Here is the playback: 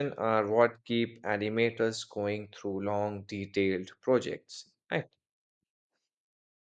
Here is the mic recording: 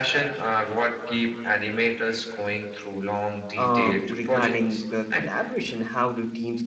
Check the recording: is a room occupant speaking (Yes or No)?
Yes